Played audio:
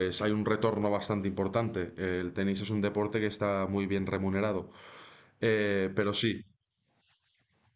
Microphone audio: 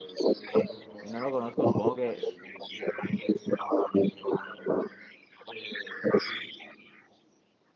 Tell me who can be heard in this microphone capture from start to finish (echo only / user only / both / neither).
both